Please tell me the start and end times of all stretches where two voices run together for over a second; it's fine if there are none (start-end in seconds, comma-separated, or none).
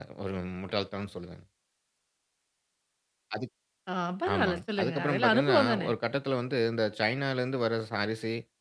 4.3-5.9